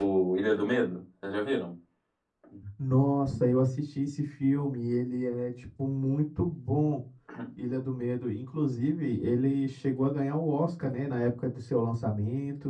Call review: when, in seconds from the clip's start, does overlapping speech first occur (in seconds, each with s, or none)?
none